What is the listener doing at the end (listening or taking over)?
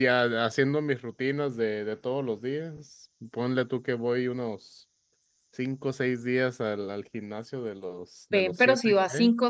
taking over